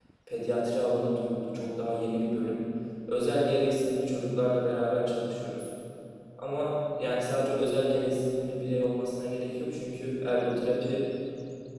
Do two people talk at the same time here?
No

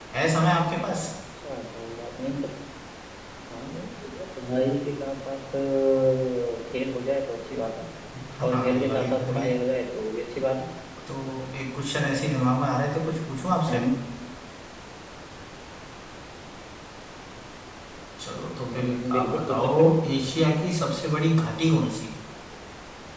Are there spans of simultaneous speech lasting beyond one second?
Yes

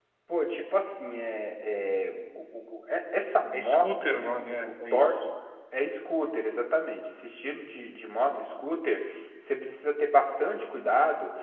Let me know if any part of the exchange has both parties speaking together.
Yes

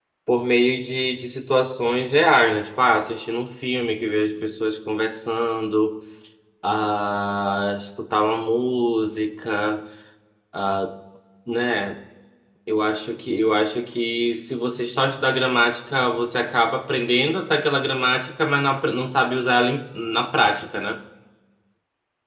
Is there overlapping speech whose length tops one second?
No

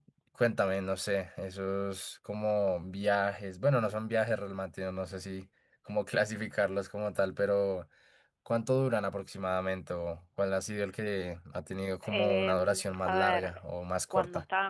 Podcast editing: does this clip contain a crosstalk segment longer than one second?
Yes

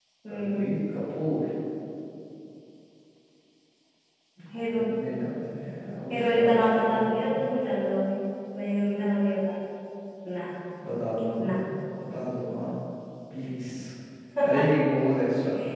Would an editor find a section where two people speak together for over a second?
Yes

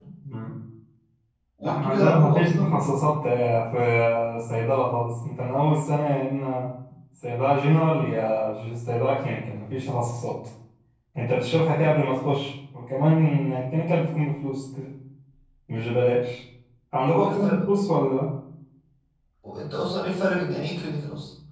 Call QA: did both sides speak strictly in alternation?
No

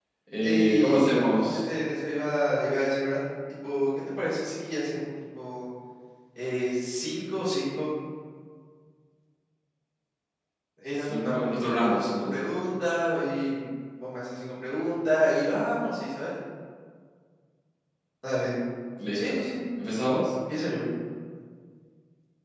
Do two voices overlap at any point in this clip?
Yes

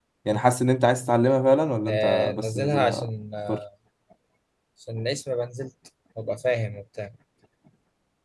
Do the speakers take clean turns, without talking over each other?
No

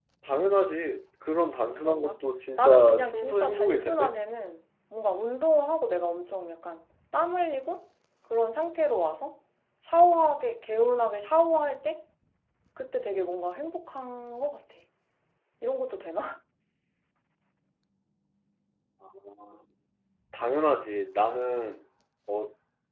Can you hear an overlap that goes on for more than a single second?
Yes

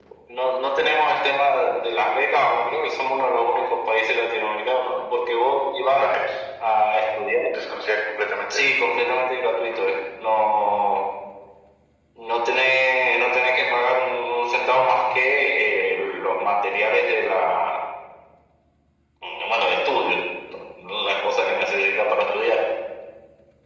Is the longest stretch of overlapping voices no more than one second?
Yes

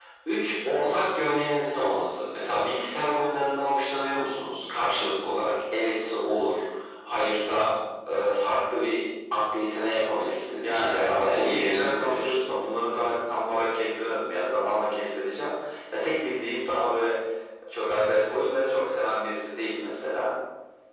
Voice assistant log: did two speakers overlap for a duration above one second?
Yes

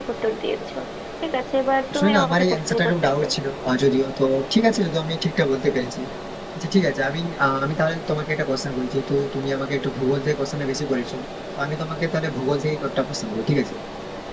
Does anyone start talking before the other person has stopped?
Yes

